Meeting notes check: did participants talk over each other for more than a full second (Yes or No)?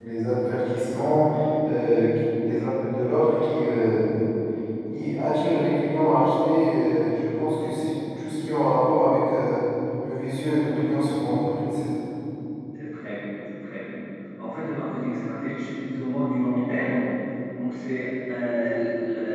No